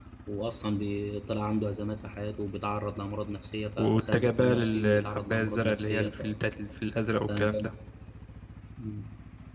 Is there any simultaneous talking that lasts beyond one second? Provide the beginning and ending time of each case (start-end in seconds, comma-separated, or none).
3.8-6.1